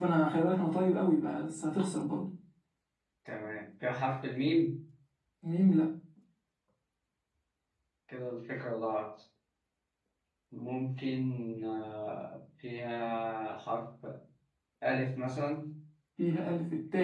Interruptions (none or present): none